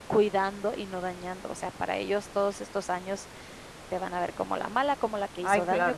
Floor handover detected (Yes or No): No